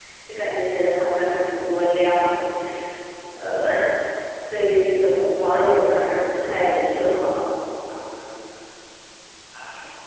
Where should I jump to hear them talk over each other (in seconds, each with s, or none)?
6.4 s